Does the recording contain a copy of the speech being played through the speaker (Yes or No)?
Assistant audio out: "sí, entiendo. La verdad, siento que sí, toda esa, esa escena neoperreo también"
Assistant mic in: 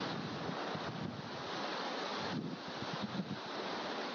No